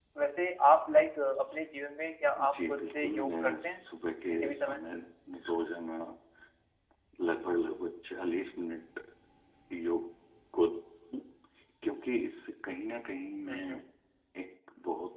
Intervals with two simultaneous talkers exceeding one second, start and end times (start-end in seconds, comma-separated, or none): 2.5-3.8